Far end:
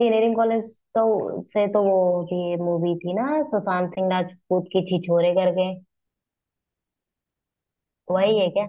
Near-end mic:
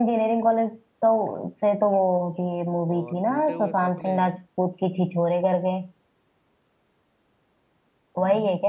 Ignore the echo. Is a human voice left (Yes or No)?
Yes